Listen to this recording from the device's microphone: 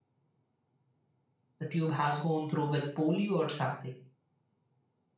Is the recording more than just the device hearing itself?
Yes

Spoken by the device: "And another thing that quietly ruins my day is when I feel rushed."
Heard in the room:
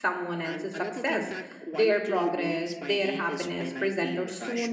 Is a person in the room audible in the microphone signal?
Yes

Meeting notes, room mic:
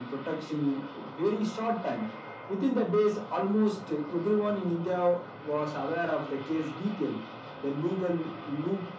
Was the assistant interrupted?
No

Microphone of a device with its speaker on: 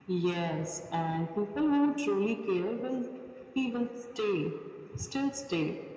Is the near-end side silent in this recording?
Yes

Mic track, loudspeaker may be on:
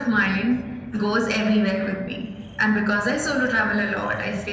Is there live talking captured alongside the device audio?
No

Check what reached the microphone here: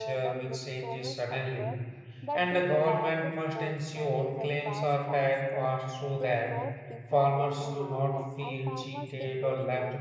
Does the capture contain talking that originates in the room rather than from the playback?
Yes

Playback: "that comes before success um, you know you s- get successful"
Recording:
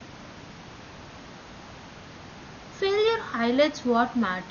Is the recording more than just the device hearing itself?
Yes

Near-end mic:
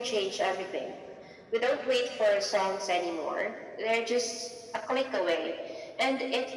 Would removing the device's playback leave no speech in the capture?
Yes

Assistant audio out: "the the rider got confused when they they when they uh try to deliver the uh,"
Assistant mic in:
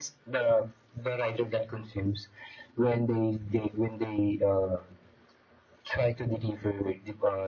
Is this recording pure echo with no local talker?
Yes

